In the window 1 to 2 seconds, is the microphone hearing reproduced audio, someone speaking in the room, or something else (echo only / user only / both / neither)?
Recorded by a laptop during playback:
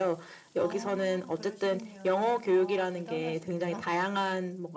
both